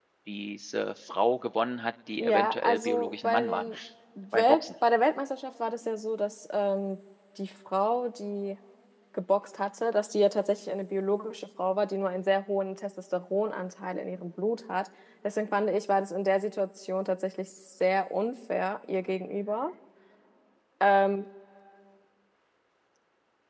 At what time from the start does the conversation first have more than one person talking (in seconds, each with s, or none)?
2.2 s